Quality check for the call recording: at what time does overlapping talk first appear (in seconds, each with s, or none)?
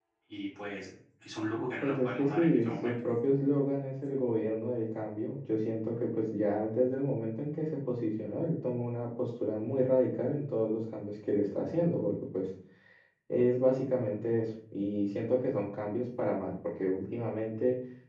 1.8 s